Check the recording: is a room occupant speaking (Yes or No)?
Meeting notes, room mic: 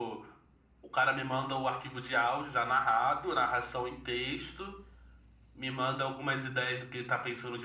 No